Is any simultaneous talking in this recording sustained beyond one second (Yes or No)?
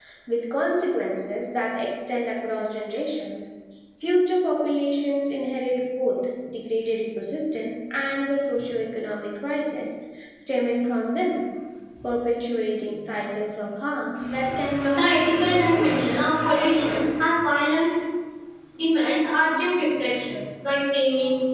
Yes